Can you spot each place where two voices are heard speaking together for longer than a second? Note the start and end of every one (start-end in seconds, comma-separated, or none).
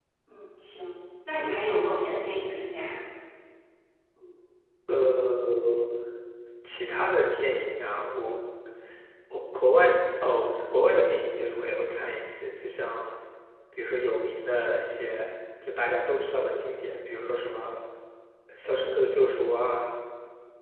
none